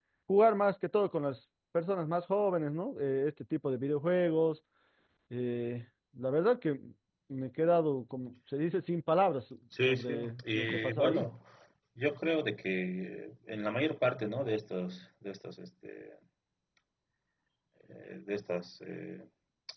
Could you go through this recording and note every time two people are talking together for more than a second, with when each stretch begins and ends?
9.9-11.3

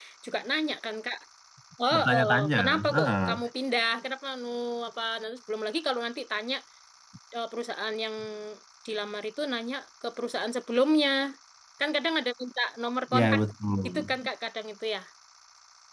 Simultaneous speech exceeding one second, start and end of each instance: 1.9-3.3

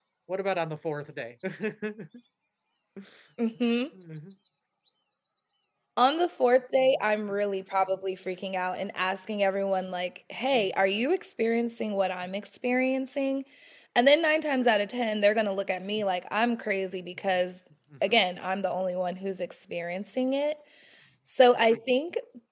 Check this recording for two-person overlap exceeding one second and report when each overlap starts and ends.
none

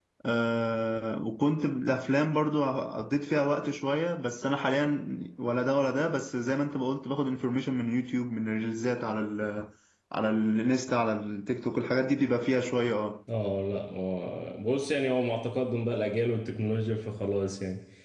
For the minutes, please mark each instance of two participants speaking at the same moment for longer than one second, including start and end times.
none

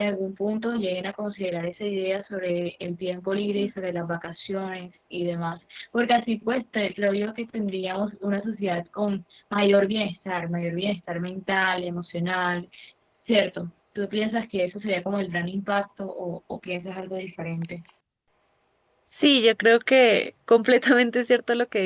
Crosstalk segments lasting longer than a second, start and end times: none

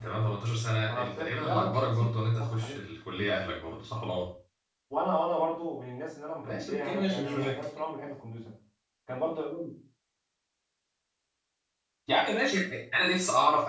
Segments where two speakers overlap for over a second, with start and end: 0.8-2.8, 6.4-7.6

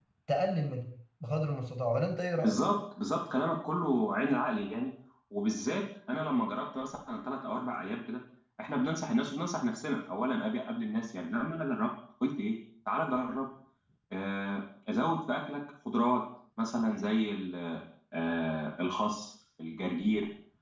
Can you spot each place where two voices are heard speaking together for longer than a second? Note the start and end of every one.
none

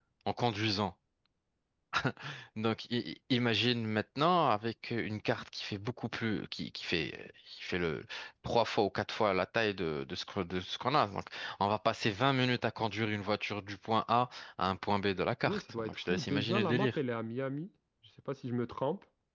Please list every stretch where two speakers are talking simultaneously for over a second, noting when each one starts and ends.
15.4-17.0

